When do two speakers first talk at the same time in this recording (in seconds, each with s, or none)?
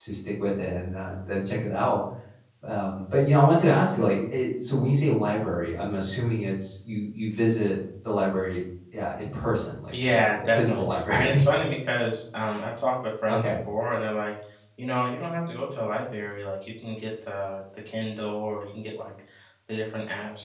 9.9 s